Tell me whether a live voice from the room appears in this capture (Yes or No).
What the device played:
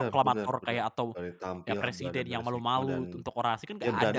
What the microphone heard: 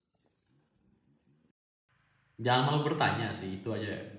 Yes